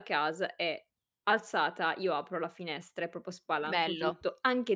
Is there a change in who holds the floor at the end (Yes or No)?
No